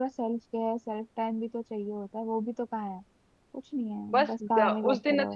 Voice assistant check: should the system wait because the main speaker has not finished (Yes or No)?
No